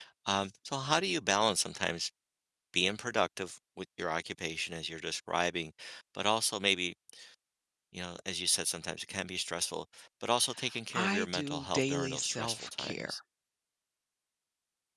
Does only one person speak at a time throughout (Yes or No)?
No